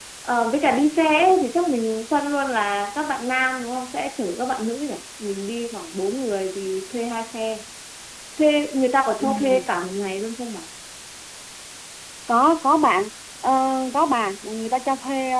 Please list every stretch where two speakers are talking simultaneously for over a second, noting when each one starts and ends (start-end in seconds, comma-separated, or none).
none